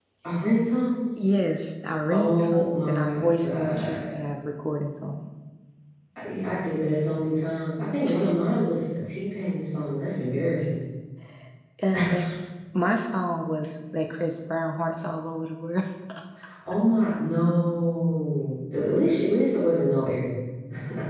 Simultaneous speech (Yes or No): Yes